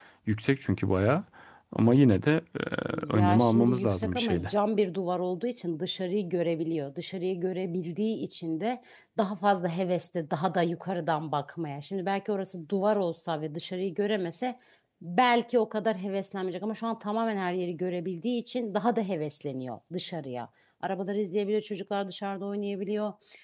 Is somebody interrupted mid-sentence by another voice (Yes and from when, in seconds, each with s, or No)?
Yes, from 3.1 s